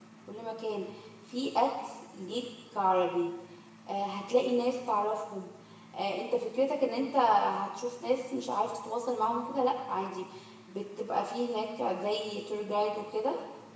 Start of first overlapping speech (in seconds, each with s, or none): none